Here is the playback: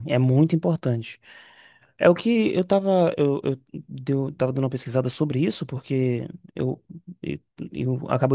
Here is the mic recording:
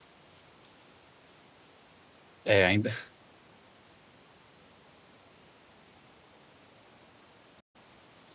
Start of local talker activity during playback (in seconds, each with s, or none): 2.4 s